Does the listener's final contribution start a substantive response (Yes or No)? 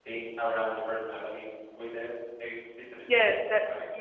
Yes